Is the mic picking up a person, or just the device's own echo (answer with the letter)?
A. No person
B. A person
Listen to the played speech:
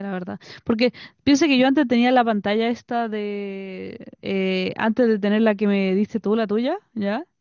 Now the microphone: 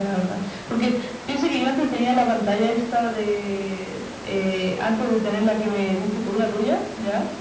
A